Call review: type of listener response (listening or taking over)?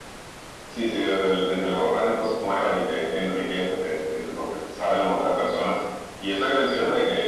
listening